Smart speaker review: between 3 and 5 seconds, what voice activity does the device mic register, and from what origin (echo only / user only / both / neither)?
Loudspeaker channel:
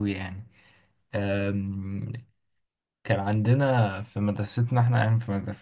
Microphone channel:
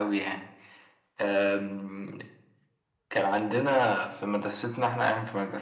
echo only